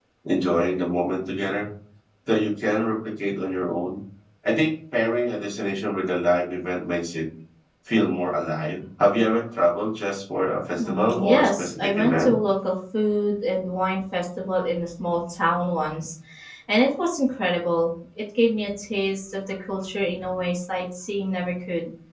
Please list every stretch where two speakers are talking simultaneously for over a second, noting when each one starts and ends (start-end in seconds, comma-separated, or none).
10.8-12.4